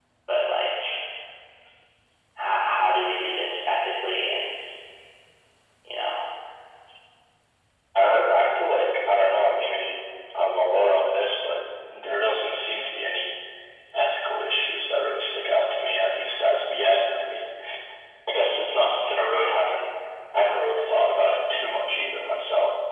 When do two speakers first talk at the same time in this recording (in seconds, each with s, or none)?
none